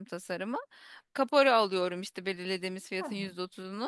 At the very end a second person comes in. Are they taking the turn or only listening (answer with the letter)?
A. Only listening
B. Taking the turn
A